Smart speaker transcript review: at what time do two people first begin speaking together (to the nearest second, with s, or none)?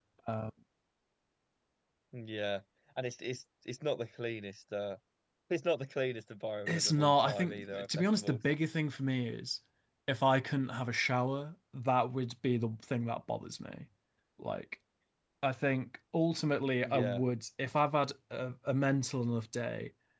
7 s